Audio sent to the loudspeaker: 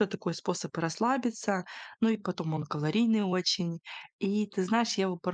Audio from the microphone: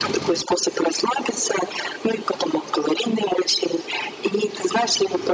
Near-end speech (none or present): none